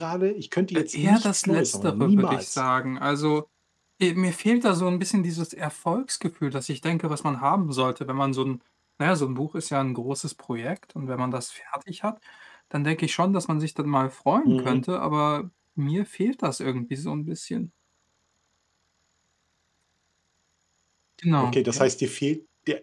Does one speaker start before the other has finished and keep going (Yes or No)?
Yes